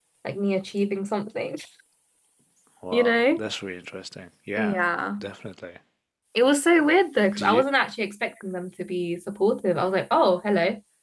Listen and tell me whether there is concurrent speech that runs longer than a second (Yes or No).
No